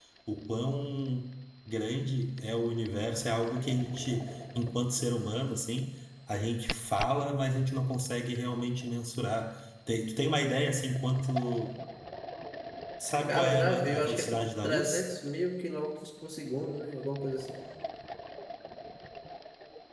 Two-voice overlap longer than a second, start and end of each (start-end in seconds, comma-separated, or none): 13.3-15.0